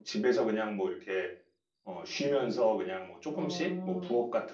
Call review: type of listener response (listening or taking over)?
listening